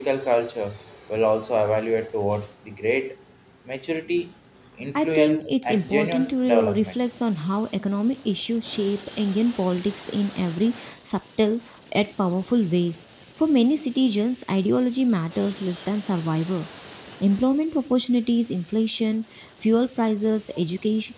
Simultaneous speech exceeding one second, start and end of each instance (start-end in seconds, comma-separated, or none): 5.0-6.9